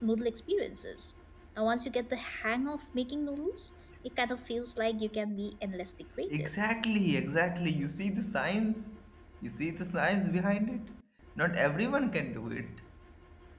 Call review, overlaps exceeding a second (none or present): none